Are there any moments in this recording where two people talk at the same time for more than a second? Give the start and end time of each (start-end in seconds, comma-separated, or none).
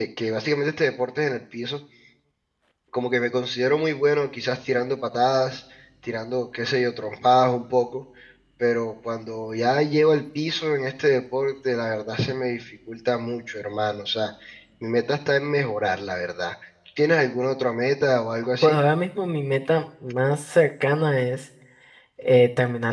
none